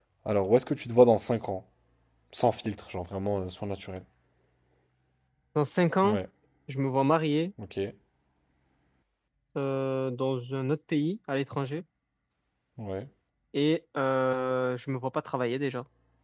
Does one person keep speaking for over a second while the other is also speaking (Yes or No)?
No